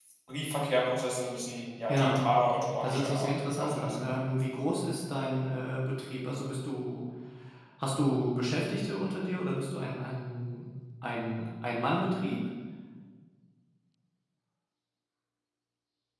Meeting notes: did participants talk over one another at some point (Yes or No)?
Yes